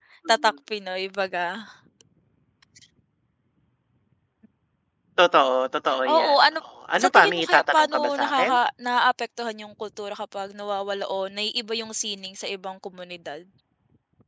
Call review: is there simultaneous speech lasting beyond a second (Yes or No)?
Yes